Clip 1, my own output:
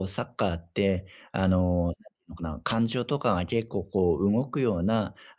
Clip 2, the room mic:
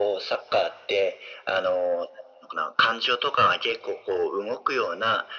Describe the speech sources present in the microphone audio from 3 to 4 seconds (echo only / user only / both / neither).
echo only